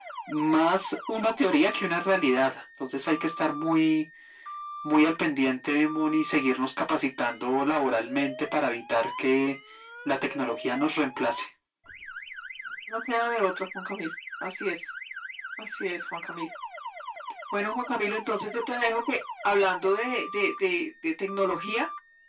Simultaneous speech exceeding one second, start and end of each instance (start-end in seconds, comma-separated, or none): none